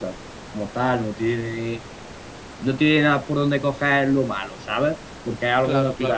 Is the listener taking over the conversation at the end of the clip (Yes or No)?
No